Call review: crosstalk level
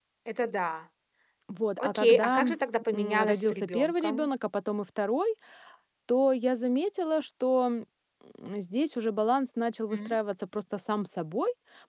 present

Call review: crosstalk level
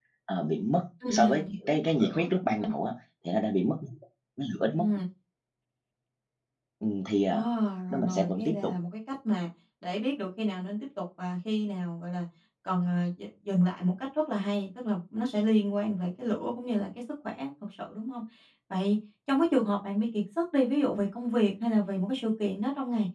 present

